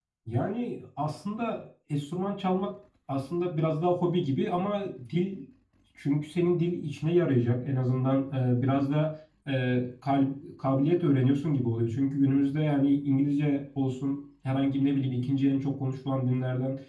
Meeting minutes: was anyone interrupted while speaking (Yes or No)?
No